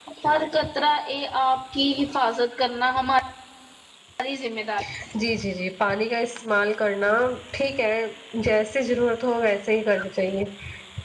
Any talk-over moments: No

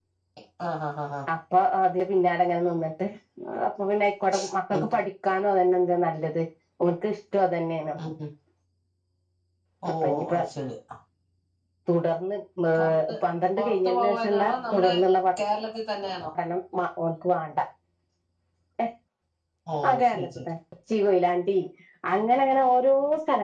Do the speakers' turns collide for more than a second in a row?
Yes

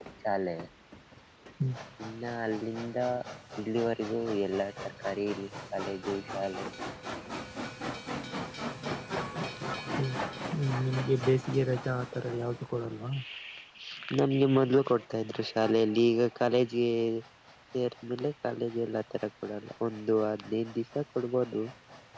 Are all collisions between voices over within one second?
Yes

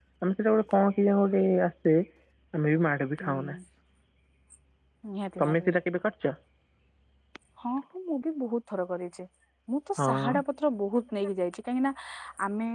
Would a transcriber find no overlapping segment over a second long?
Yes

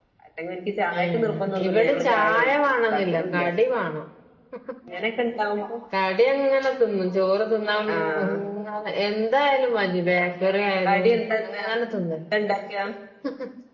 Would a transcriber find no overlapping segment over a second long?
No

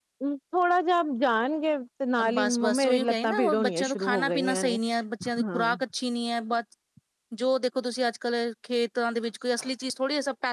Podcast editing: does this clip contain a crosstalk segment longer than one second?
Yes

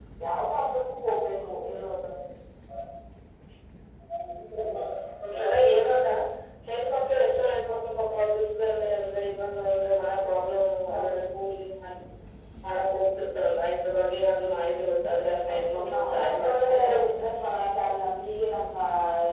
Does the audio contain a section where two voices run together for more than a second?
Yes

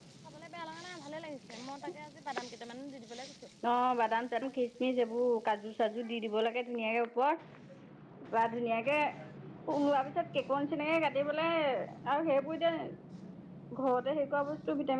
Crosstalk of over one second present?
No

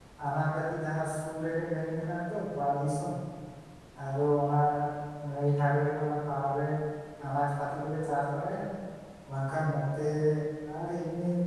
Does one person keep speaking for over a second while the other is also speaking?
No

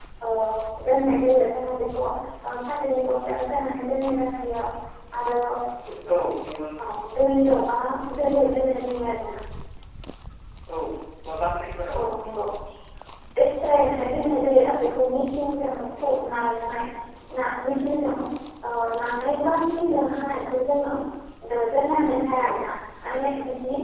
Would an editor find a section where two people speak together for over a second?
No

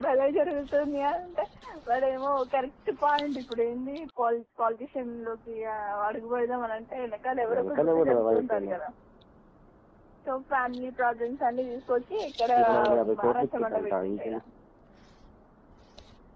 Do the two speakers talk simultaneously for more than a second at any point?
Yes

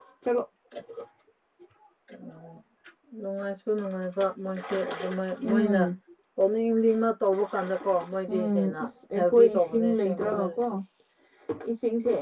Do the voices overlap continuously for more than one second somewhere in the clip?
Yes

